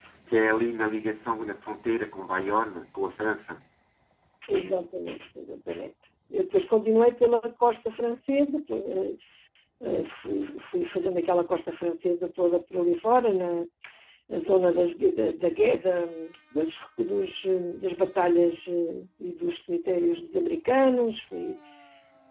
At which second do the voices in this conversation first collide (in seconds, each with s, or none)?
none